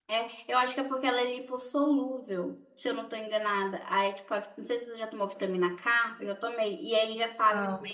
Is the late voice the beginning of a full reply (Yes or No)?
No